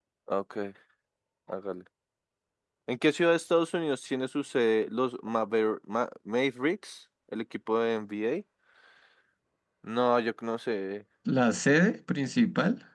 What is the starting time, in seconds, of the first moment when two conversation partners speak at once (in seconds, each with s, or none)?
none